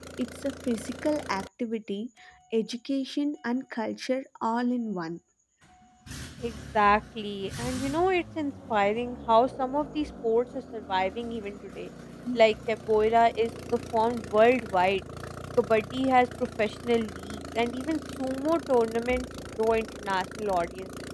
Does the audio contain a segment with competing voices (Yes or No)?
No